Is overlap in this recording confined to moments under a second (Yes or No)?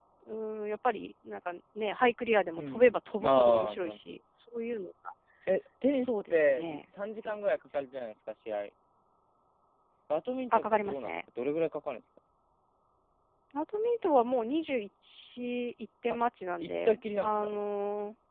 No